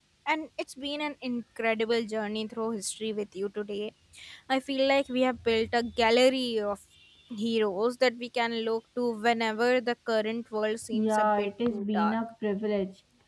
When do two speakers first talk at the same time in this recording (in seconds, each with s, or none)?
10.9 s